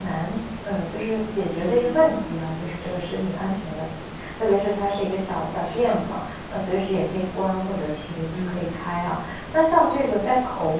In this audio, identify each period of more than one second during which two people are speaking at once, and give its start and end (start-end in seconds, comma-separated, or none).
none